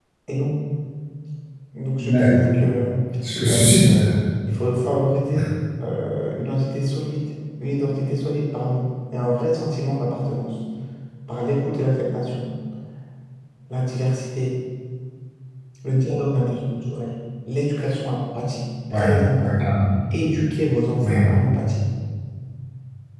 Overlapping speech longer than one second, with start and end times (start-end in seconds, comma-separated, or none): none